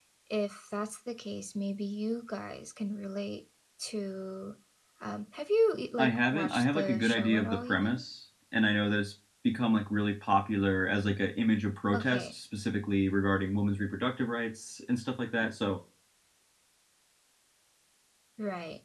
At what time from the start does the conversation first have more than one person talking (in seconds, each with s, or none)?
6.0 s